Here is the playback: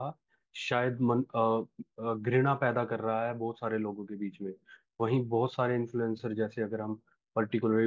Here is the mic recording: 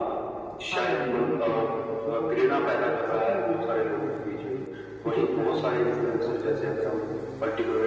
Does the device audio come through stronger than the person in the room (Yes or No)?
Yes